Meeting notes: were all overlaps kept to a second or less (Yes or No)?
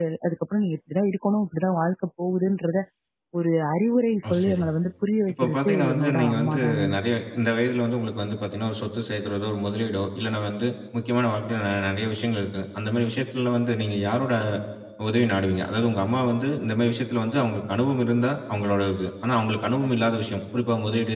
No